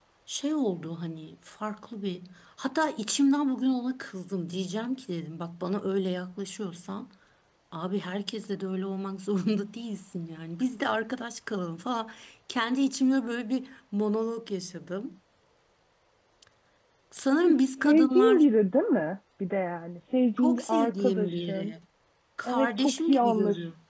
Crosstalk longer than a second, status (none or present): present